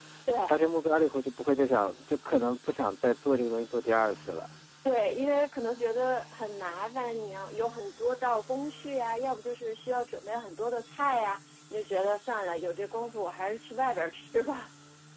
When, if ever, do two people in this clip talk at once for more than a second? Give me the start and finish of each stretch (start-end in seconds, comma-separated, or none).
none